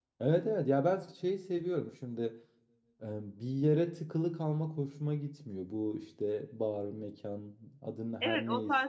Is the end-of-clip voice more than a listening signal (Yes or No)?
Yes